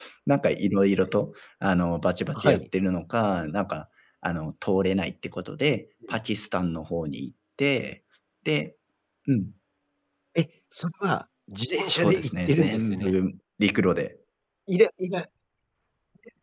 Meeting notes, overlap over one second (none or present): present